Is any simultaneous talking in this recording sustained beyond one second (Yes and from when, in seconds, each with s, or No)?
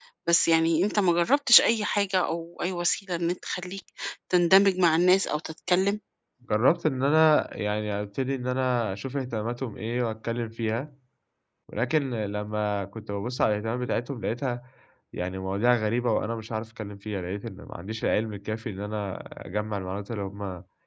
No